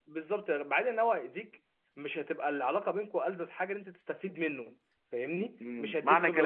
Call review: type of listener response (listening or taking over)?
taking over